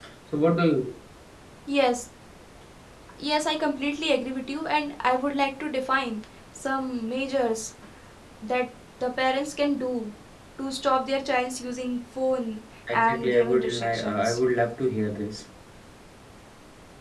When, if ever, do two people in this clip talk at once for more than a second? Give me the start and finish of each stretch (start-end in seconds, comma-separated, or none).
12.9-14.4